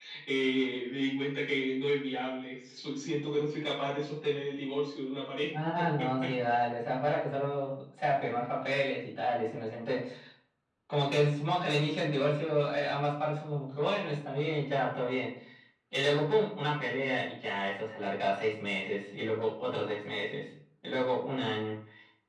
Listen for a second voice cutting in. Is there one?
No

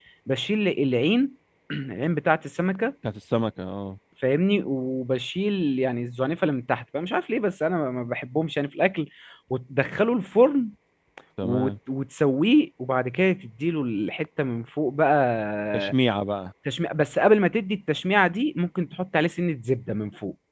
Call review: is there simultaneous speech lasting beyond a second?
No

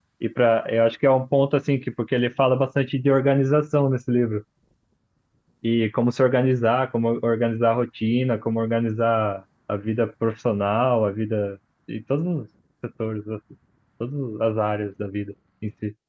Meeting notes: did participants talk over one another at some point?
No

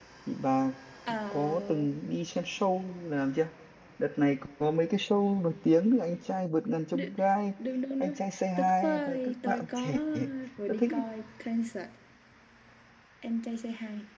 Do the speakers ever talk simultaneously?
Yes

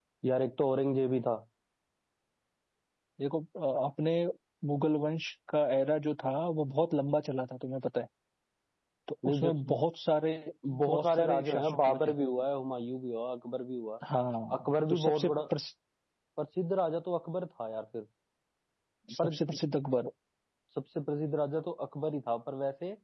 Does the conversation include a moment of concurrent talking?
Yes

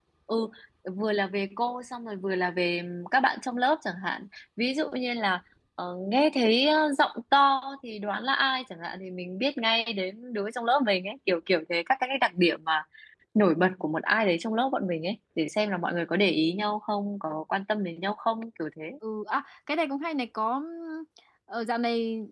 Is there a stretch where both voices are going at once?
No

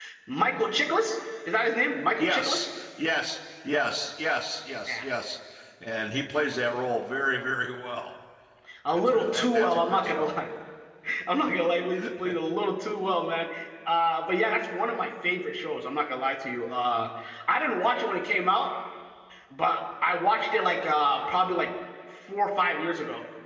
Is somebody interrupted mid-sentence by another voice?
Yes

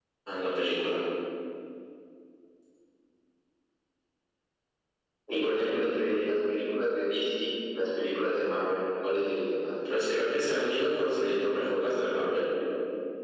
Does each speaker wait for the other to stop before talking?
Yes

